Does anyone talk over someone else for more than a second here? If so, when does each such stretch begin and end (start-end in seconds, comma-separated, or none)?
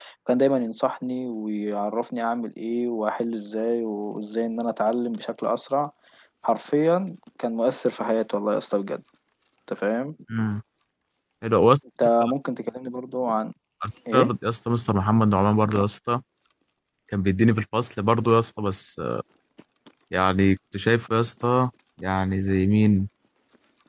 none